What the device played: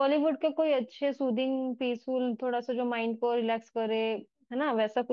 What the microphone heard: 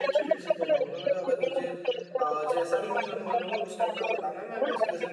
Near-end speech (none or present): present